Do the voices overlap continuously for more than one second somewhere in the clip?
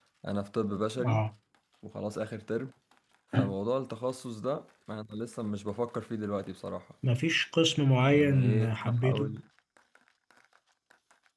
Yes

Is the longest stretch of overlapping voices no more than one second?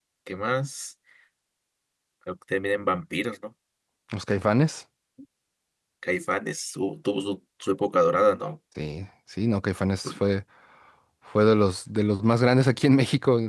Yes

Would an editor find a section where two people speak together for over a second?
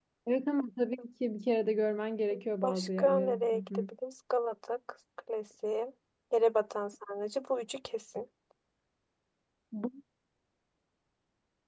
Yes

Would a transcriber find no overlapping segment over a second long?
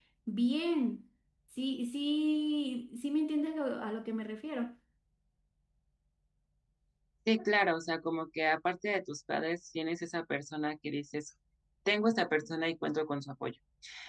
Yes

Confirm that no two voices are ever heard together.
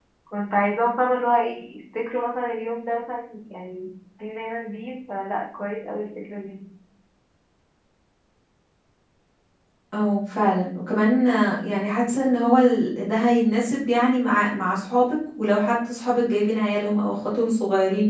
Yes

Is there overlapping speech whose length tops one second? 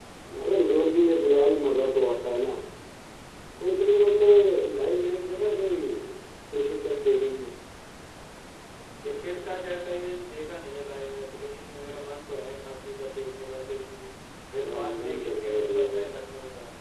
Yes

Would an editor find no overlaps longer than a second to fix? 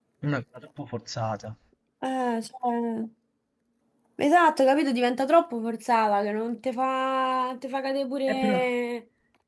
Yes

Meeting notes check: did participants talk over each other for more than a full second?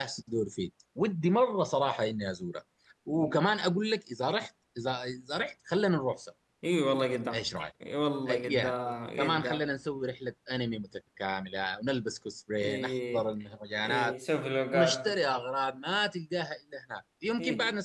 Yes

